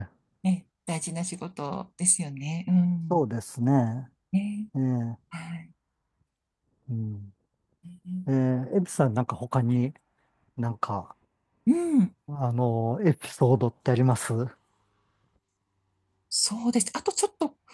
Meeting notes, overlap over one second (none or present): none